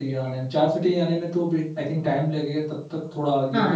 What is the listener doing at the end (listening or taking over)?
taking over